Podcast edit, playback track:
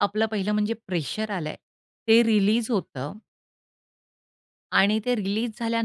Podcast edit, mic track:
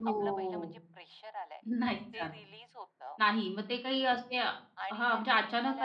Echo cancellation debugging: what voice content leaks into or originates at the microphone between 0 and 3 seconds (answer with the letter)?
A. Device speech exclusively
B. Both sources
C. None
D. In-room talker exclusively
B